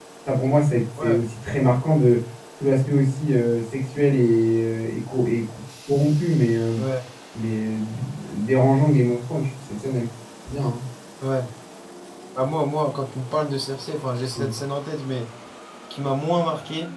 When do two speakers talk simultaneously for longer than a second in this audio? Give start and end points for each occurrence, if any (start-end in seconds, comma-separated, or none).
none